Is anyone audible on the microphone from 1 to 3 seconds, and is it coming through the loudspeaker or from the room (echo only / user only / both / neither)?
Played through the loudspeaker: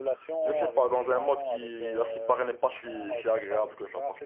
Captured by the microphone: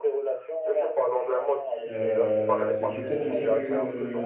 both